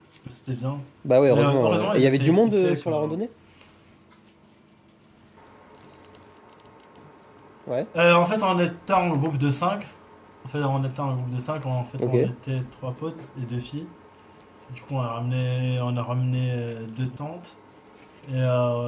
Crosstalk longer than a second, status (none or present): present